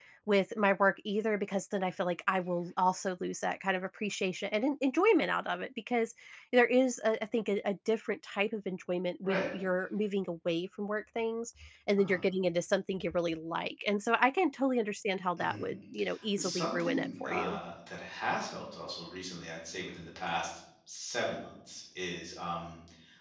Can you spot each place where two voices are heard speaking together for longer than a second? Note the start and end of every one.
16.4-17.6

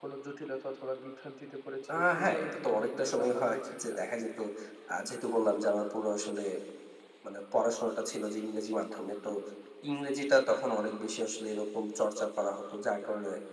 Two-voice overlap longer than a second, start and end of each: 1.9-4.0

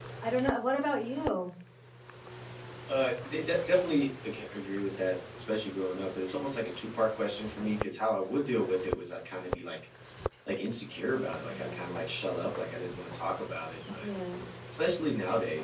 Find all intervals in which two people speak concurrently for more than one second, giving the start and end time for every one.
none

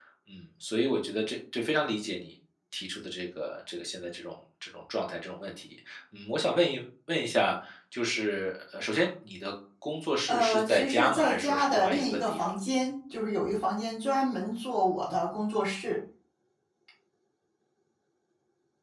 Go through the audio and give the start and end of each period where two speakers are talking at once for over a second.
10.3-12.5

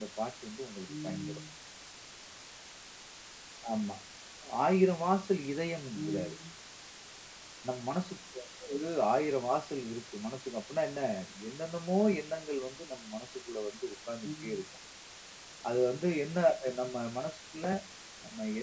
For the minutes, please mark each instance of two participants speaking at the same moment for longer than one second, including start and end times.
none

